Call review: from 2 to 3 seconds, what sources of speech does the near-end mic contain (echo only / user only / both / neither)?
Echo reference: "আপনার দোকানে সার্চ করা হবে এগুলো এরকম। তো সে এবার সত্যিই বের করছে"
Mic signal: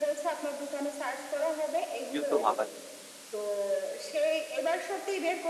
both